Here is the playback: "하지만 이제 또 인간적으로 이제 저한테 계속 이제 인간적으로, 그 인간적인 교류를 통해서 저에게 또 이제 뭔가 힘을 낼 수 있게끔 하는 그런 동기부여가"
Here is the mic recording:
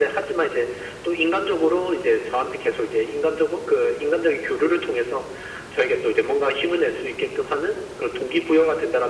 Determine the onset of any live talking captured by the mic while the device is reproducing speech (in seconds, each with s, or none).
none